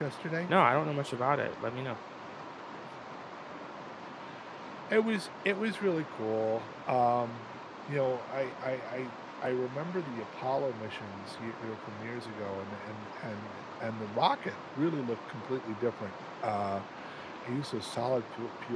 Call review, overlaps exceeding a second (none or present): none